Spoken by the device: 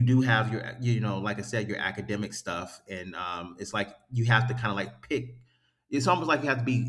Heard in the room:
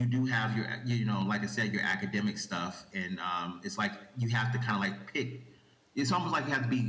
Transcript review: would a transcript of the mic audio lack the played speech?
No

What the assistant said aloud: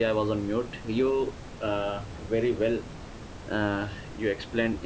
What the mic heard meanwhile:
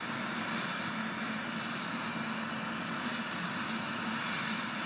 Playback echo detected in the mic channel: No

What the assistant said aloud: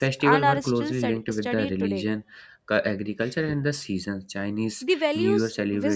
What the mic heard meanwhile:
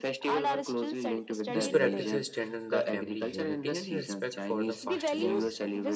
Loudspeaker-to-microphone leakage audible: Yes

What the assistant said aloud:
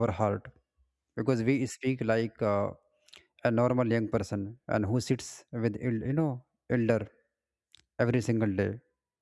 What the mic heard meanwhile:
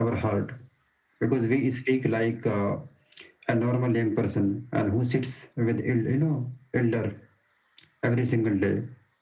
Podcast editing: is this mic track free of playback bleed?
No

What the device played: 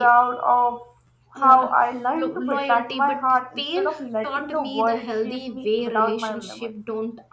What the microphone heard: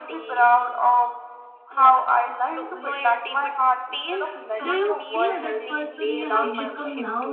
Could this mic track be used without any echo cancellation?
No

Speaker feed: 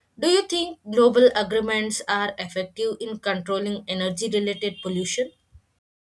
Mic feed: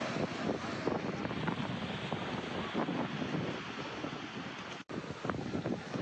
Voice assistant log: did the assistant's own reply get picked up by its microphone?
No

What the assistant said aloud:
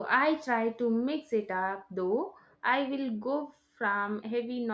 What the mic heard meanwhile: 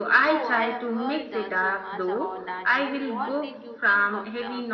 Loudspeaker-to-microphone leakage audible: Yes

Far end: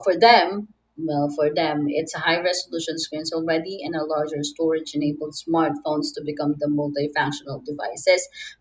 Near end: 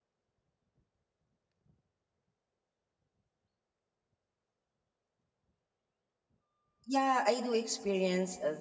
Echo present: No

